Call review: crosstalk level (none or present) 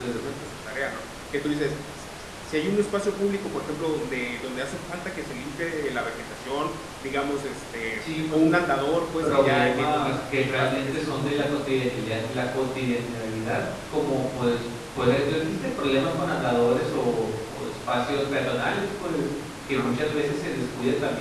present